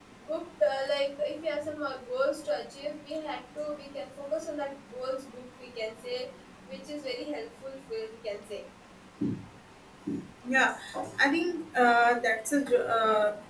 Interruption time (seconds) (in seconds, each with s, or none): none